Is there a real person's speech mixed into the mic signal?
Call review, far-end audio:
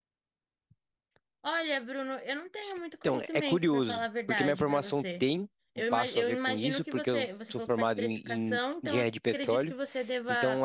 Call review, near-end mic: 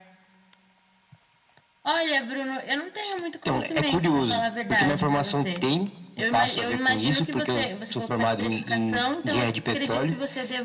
No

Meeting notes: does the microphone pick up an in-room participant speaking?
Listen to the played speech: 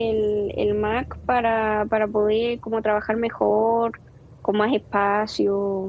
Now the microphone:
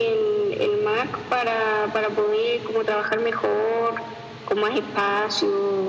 No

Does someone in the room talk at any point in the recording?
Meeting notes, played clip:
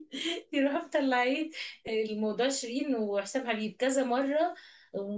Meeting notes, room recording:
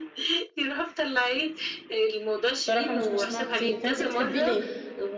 Yes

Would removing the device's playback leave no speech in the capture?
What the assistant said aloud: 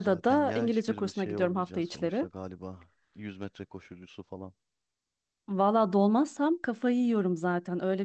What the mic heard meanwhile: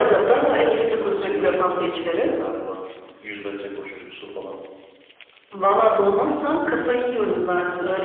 Yes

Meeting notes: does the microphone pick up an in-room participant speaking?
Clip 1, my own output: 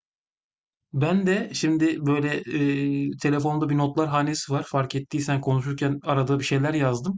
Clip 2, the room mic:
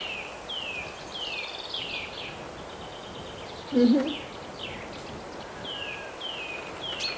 Yes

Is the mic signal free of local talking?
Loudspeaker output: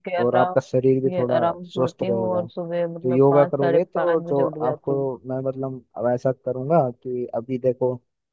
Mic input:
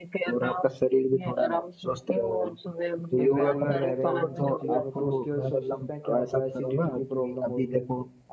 No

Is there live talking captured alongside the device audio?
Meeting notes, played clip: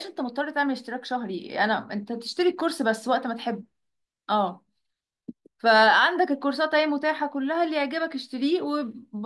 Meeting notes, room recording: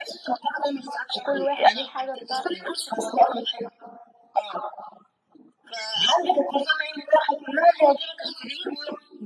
Yes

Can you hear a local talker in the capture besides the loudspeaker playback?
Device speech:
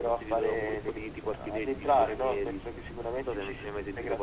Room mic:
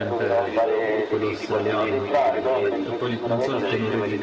Yes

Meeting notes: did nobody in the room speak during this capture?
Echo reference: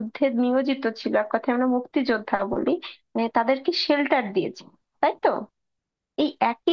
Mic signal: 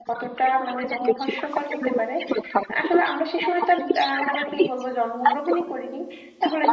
No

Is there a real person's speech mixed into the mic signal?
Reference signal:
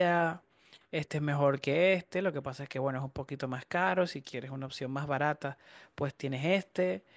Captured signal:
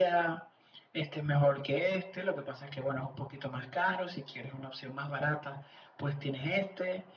No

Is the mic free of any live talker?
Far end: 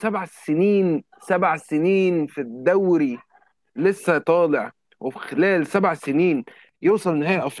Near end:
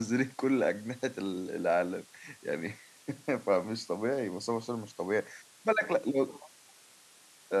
No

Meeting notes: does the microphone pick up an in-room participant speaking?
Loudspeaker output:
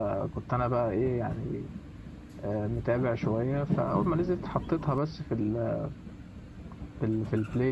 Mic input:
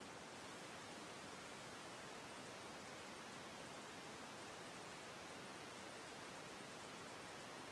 No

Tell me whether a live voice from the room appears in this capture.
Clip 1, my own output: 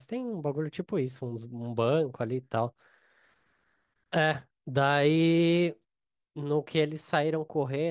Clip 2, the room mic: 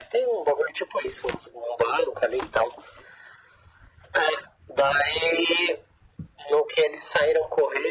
No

